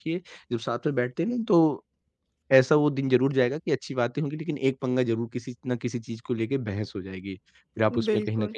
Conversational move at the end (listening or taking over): listening